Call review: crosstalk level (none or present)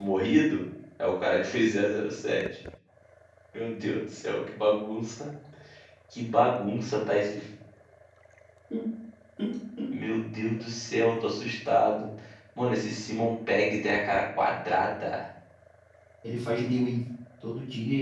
none